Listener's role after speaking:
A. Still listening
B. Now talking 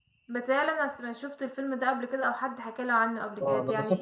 B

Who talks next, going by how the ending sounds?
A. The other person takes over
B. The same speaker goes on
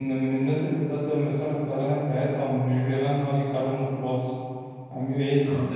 B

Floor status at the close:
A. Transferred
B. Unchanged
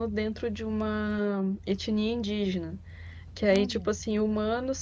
B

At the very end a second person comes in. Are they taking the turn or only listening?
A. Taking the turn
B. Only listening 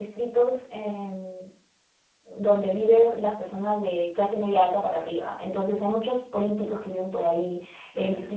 B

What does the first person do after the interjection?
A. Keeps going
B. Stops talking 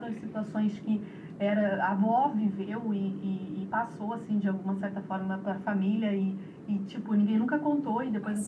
A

